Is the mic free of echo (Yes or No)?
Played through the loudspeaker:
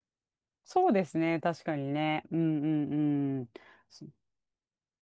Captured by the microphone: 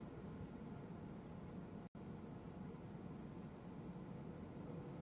Yes